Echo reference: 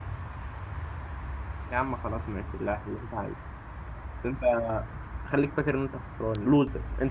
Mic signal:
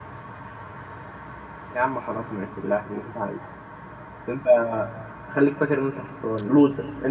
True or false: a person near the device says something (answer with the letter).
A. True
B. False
B